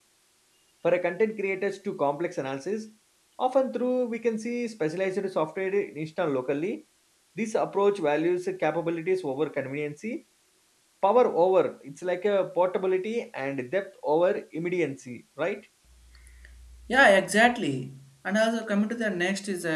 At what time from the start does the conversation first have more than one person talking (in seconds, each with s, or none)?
none